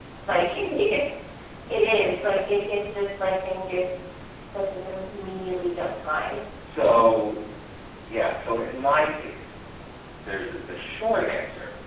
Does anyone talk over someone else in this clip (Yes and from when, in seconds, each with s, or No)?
No